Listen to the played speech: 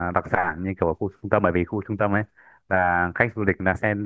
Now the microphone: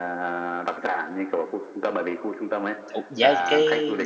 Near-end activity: present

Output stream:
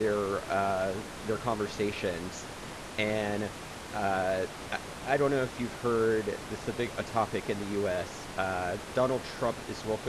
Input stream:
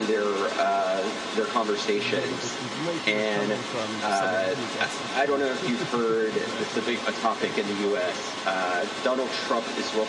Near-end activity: present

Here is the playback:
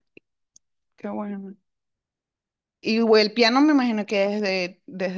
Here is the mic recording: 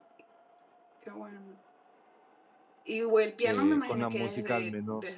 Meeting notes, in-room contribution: present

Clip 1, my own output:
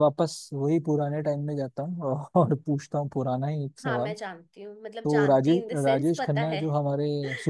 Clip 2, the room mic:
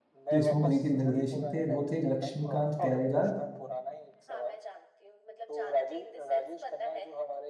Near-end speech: present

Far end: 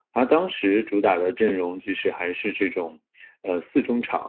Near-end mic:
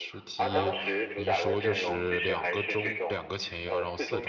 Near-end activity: present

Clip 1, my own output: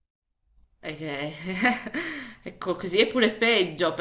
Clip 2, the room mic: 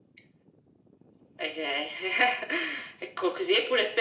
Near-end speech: none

